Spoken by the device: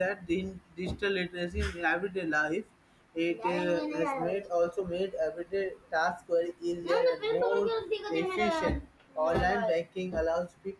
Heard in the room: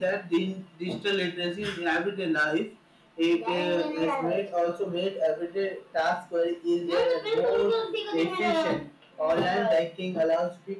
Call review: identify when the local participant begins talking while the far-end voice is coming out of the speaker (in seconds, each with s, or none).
none